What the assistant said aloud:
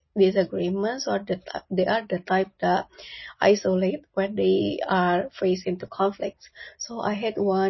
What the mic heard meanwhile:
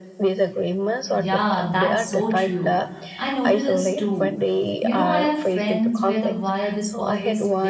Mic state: both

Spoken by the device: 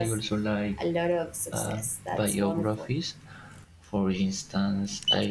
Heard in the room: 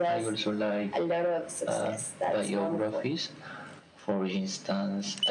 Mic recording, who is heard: echo only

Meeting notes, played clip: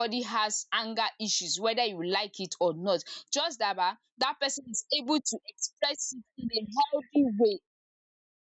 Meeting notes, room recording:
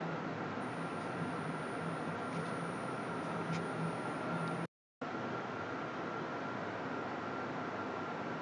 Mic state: neither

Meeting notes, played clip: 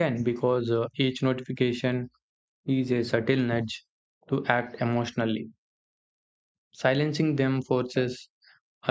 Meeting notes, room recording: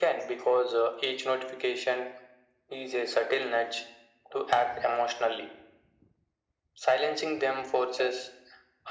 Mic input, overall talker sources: echo only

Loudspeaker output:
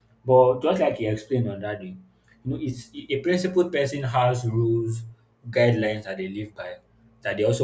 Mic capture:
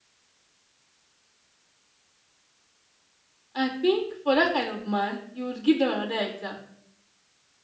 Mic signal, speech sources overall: user only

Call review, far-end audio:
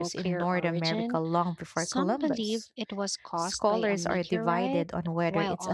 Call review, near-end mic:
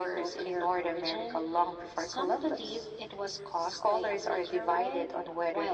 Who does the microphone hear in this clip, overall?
echo only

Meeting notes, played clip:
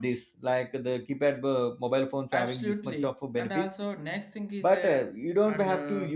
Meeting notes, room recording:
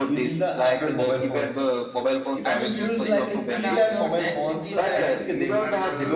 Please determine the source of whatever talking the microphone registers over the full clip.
both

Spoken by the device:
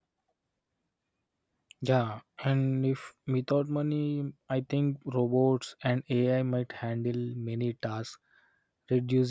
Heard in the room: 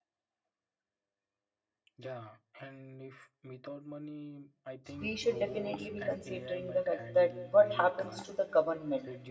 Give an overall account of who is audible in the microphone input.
both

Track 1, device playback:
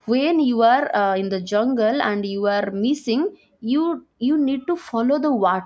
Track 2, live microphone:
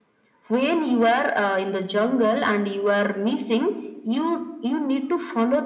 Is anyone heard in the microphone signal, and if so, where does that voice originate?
echo only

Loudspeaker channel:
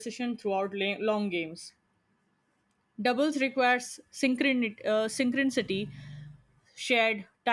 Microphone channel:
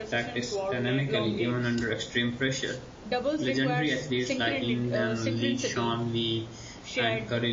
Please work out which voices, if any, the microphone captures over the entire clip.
both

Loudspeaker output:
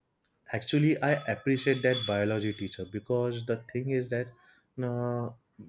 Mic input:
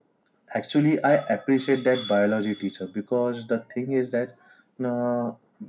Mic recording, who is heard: echo only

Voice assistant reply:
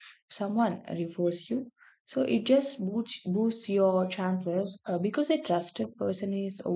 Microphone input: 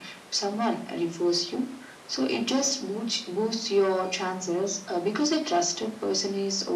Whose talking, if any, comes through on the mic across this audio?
echo only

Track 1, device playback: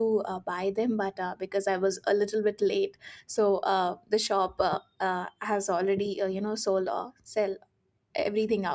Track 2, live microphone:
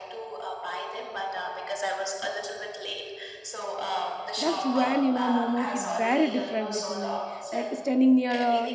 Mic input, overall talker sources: both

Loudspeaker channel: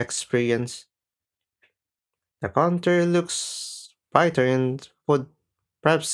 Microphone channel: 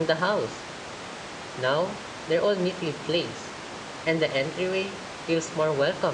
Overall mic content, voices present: user only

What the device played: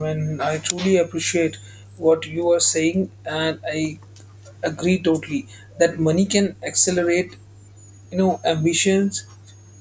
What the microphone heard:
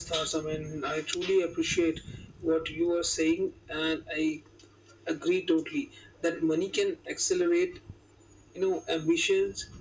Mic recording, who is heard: echo only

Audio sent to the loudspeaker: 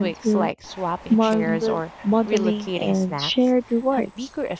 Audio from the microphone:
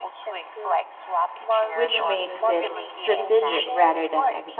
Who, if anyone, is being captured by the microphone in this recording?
both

